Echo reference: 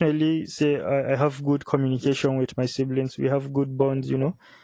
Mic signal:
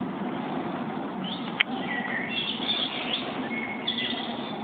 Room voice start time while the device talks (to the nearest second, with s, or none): none